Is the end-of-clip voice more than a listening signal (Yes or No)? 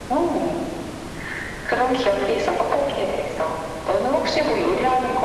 Yes